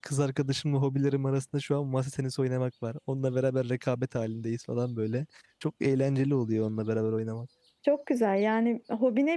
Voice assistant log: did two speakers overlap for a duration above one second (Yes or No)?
No